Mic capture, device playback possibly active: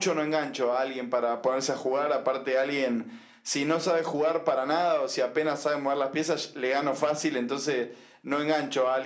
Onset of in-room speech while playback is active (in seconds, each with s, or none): none